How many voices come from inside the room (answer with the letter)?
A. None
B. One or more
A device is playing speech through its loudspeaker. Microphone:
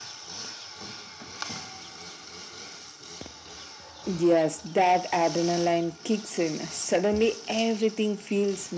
A